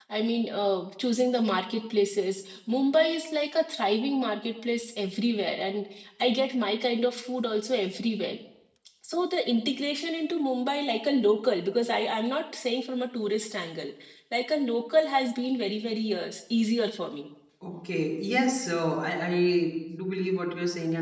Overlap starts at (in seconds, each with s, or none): none